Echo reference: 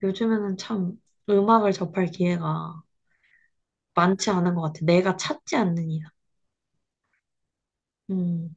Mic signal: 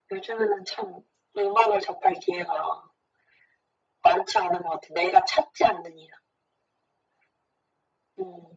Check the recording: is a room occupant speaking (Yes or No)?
No